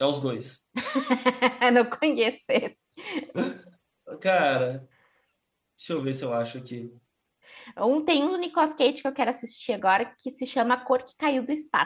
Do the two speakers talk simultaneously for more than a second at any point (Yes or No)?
No